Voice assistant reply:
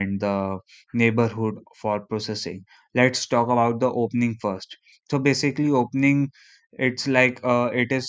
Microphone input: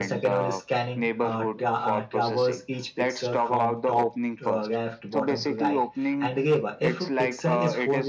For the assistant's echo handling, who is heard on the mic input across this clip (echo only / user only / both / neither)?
both